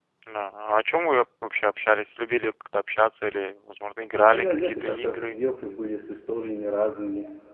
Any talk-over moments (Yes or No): Yes